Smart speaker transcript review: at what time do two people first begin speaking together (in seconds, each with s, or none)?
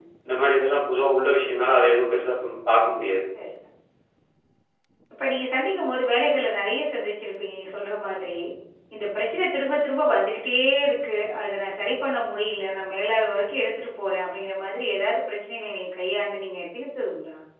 none